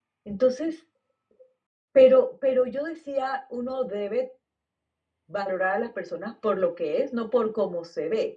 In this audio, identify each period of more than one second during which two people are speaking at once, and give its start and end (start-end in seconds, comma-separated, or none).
none